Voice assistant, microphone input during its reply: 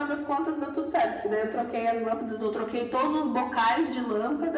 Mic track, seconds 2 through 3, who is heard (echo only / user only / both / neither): echo only